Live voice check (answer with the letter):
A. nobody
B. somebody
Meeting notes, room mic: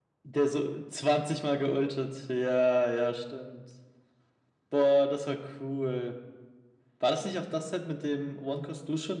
A